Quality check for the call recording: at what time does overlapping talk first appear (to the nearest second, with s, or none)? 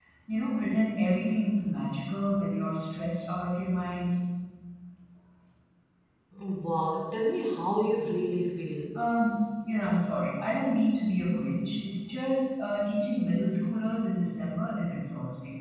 none